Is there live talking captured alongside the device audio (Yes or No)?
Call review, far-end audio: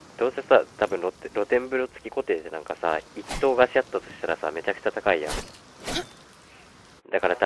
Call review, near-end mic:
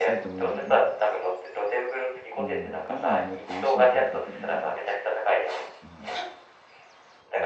Yes